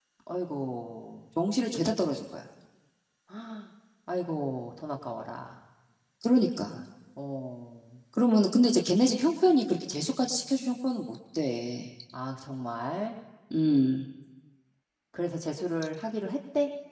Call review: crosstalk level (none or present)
none